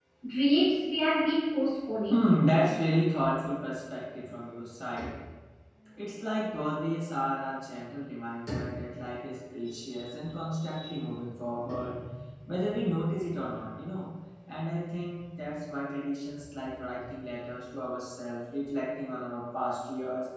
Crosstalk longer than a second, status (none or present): none